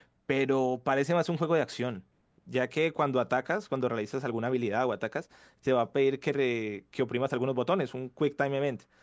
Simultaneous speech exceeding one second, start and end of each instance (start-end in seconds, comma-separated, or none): none